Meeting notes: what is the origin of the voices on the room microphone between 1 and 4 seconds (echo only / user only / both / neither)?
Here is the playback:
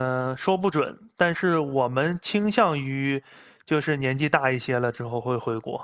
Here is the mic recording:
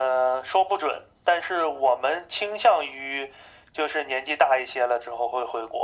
echo only